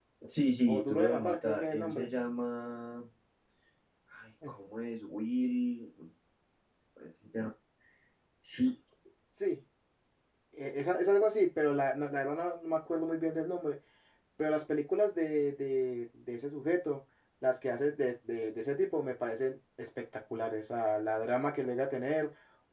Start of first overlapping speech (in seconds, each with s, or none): 0.7 s